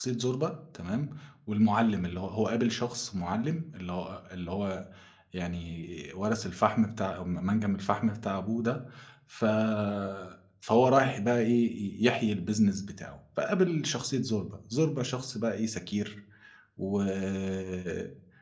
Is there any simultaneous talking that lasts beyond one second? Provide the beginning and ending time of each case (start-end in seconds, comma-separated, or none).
none